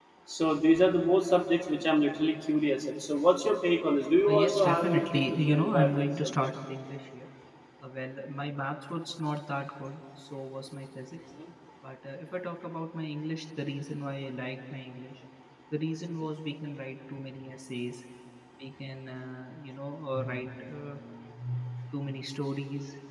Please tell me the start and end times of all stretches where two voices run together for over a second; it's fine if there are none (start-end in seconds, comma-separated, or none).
4.3-6.5